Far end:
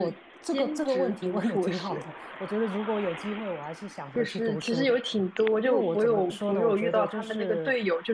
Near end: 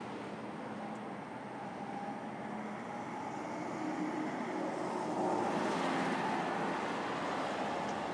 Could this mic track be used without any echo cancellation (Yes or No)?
Yes